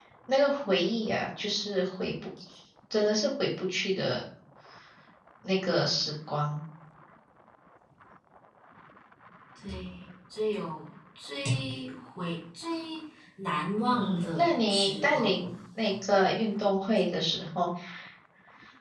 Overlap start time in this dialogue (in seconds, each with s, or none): 13.9 s